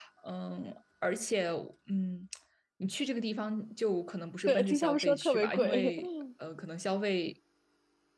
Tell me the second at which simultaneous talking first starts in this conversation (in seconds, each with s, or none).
4.5 s